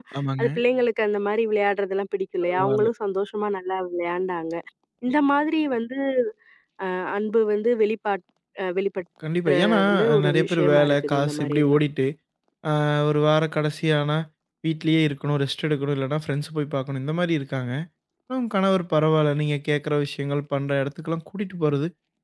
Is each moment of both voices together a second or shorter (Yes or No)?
No